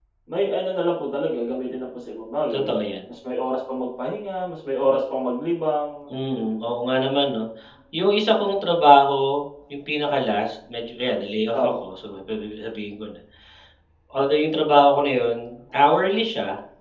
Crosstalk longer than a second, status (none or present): none